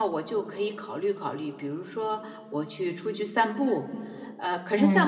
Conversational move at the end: listening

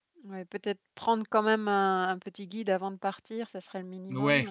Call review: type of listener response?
taking over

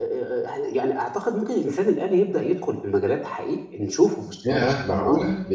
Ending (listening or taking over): taking over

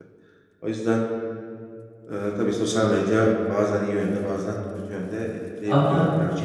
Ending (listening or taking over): taking over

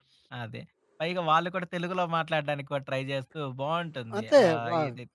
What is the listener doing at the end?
taking over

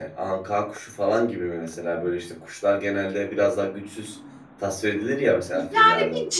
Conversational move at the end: taking over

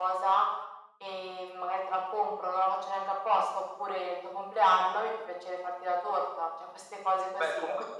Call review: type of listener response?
taking over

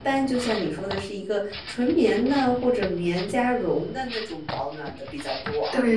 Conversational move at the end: taking over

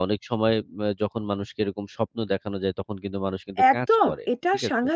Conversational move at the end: taking over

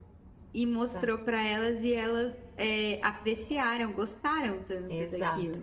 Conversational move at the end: taking over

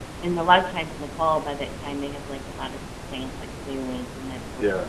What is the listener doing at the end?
taking over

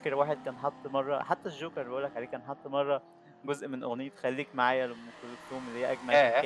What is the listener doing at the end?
listening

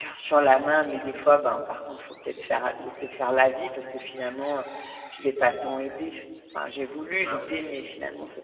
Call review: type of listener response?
listening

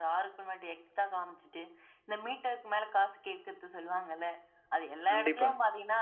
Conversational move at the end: listening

